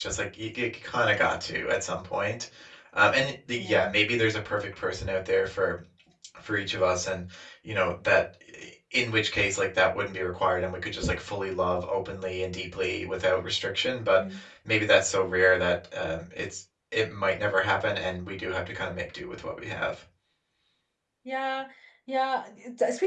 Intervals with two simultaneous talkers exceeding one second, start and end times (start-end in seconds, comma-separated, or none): none